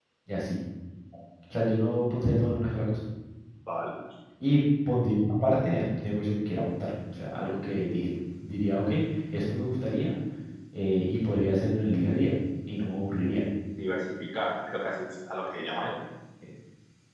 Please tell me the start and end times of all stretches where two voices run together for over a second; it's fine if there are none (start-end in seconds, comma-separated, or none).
none